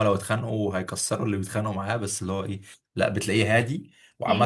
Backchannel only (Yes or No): Yes